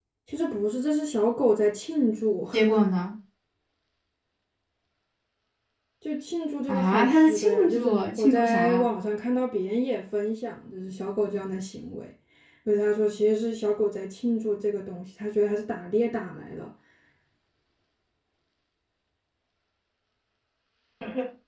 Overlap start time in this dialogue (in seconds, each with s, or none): 6.7 s